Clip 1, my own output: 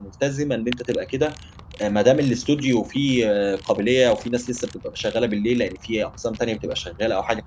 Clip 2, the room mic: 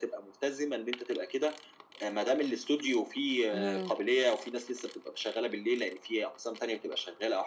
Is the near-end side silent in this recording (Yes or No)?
No